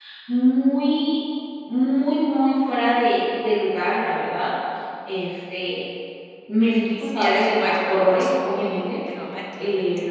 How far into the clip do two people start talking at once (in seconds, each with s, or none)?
7.0 s